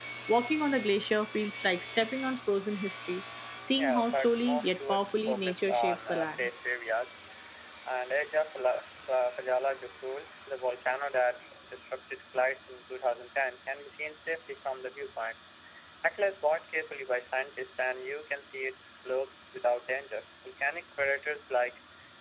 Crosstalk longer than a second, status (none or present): present